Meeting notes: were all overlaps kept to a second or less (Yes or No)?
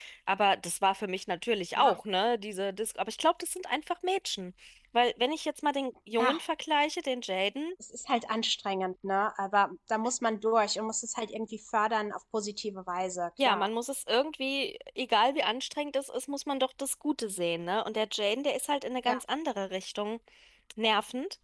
Yes